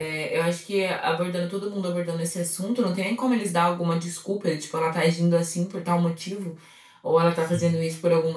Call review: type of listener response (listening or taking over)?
listening